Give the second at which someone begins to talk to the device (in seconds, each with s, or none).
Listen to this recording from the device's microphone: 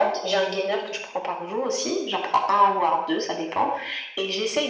none